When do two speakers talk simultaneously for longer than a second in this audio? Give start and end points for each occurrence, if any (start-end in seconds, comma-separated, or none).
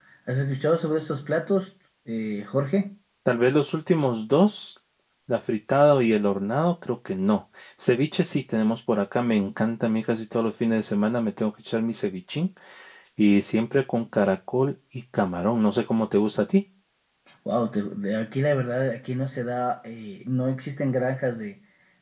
none